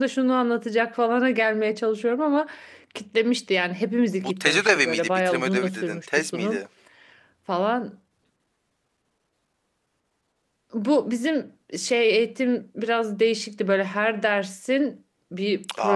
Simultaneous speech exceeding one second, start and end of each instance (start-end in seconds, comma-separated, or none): 4.4-6.6